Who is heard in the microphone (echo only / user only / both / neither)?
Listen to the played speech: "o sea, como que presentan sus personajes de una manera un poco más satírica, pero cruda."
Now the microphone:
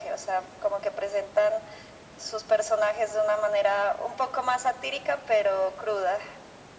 echo only